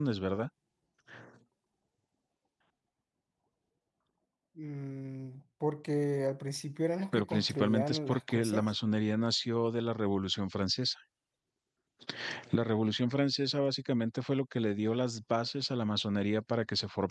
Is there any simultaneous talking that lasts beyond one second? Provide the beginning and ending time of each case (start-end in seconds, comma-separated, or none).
7.1-8.7